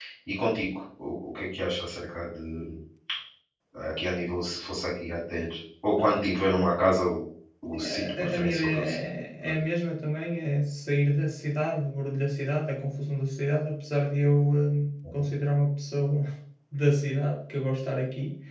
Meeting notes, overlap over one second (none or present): present